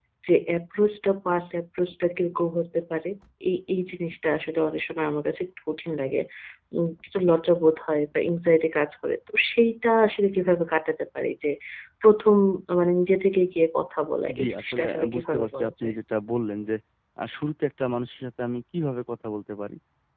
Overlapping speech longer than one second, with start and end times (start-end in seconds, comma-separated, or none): 14.4-15.9